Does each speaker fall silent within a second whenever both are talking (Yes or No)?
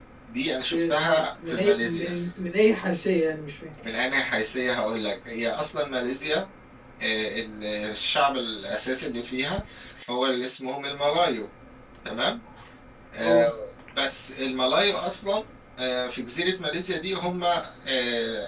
No